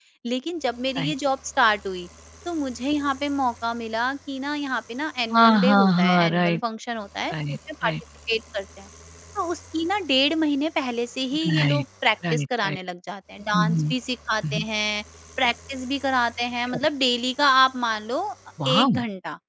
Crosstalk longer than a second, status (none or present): present